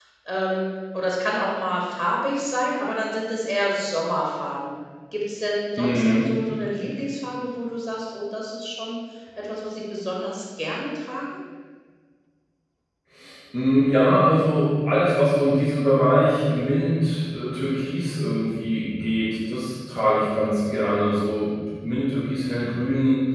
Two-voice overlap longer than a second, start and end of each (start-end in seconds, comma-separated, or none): none